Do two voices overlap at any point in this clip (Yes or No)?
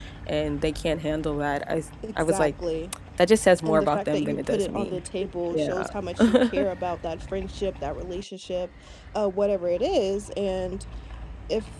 Yes